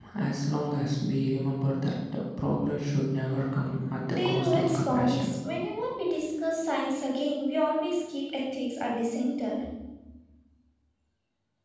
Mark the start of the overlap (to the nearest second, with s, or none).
4 s